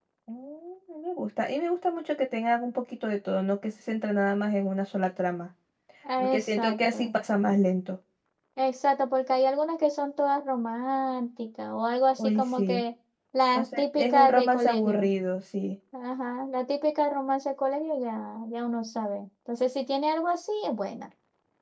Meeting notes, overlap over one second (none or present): present